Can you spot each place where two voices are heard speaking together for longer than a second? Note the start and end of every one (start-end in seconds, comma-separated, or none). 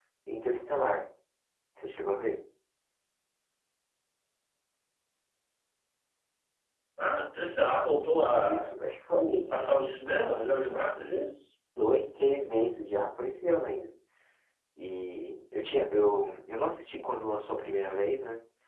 9.6-11.2